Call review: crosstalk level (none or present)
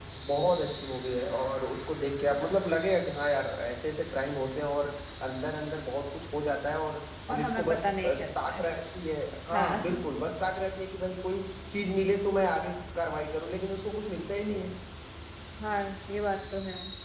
present